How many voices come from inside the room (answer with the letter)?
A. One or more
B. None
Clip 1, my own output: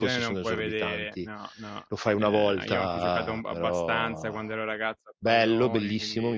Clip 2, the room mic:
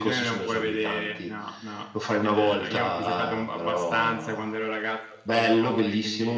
B